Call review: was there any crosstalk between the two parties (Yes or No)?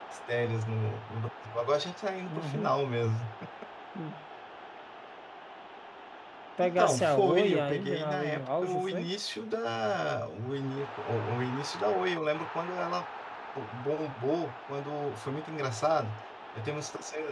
Yes